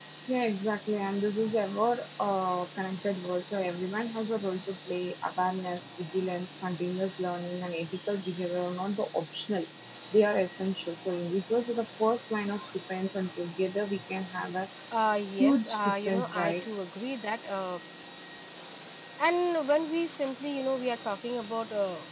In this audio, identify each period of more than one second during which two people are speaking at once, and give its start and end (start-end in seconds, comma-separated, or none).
15.4-16.6